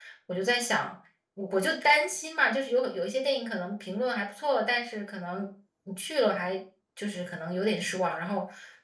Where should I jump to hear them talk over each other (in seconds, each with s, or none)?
none